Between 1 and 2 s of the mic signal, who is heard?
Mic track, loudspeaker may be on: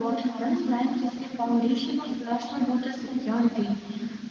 echo only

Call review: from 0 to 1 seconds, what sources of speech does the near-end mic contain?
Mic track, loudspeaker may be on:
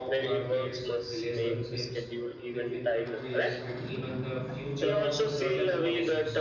both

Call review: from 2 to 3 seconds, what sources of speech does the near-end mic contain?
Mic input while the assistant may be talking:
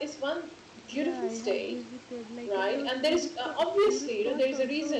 both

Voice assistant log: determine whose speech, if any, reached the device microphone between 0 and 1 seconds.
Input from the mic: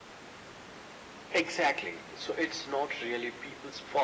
neither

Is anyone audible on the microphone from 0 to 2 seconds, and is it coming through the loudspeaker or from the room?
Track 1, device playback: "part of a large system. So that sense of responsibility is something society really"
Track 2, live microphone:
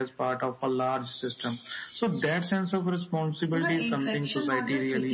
echo only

